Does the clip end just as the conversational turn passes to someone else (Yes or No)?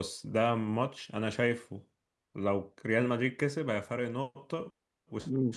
No